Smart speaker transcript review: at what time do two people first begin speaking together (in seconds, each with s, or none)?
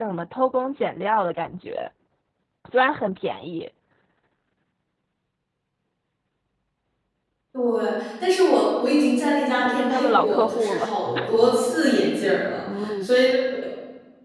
9.6 s